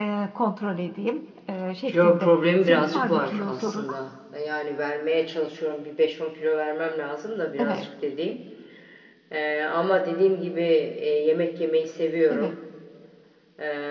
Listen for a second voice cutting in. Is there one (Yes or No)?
Yes